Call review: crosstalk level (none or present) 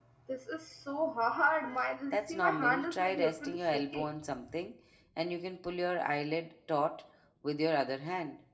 present